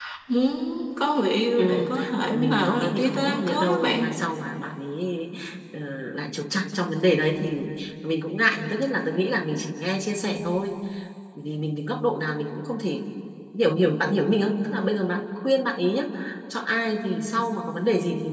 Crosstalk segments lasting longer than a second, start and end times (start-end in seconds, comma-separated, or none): 2.3-4.2